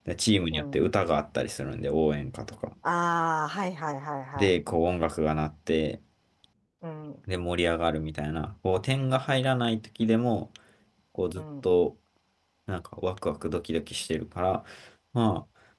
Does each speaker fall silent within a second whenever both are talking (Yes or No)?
Yes